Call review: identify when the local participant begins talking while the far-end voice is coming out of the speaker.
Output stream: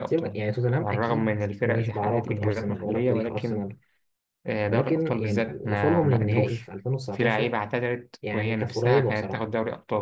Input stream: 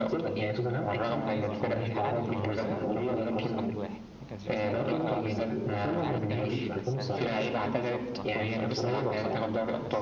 1.3 s

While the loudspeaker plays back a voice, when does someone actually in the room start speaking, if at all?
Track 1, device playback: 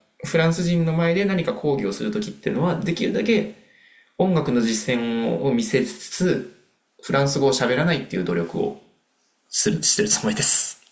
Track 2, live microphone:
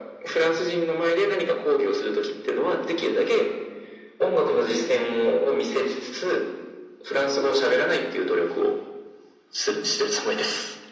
none

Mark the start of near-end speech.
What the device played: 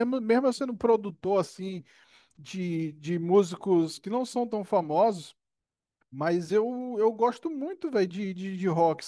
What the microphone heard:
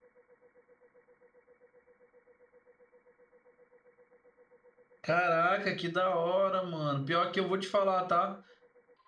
5.0 s

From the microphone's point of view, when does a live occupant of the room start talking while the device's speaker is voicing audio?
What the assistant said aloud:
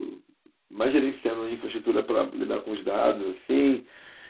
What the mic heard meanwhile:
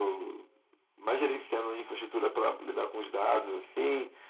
none

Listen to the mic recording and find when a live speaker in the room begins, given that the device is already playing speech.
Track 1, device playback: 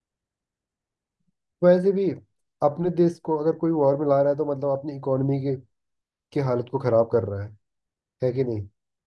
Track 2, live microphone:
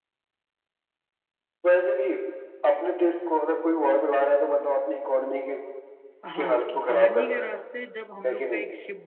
6.2 s

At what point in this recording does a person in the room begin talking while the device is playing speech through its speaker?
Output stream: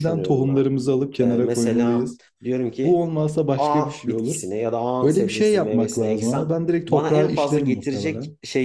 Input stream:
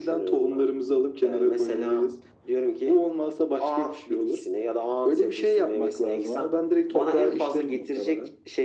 none

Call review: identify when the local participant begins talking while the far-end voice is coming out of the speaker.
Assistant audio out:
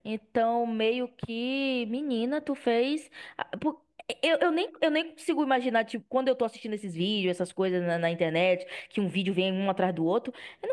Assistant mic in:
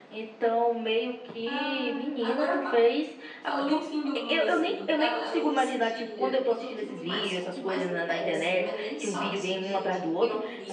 1.4 s

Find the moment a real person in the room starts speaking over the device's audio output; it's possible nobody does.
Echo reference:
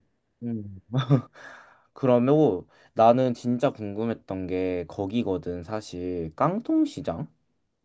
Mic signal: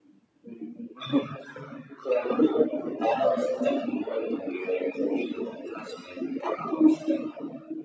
none

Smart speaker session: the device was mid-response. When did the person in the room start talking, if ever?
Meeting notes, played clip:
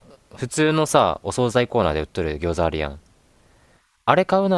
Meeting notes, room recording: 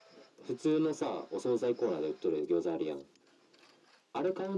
none

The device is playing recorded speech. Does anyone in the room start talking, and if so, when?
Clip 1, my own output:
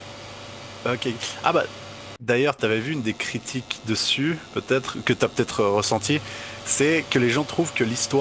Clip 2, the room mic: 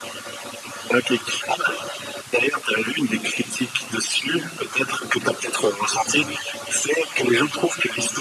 none

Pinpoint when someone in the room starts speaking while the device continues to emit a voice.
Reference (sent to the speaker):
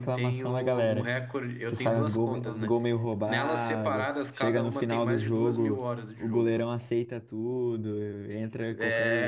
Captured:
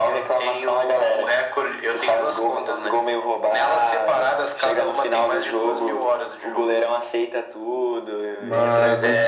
8.4 s

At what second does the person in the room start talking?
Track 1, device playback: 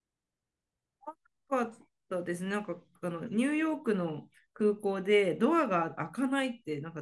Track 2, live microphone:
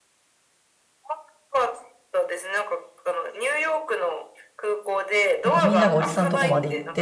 5.4 s

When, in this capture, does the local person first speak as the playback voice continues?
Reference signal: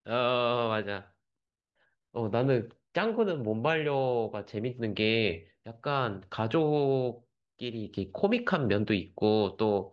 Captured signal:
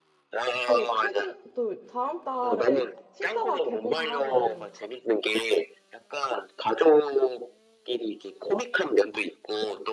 0.6 s

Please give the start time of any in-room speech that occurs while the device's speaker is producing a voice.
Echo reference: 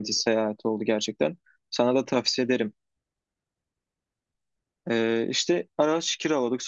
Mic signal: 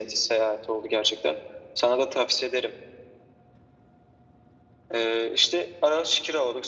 none

